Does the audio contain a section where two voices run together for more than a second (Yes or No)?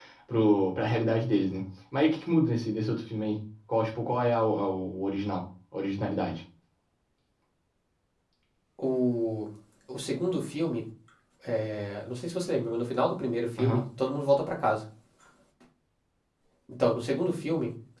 No